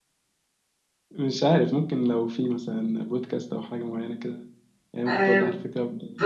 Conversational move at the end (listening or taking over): taking over